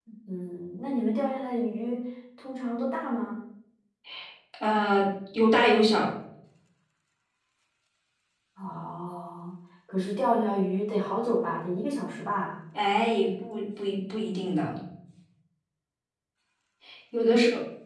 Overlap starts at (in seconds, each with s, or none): none